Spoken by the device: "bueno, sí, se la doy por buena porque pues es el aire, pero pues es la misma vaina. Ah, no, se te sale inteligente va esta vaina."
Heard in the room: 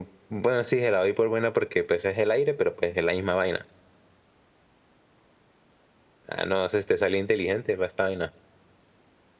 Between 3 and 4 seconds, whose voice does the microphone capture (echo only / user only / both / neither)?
echo only